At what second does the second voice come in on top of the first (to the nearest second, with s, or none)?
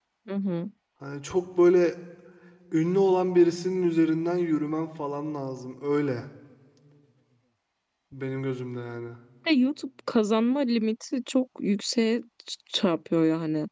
none